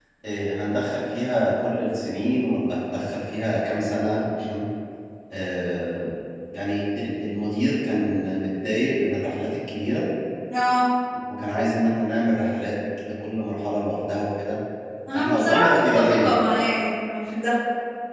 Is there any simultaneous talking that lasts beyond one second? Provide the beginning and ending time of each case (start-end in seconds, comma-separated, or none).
15.1-16.4